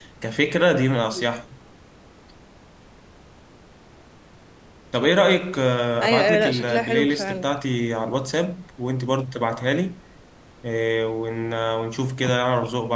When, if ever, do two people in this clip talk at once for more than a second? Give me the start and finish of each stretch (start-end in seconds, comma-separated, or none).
6.0-7.5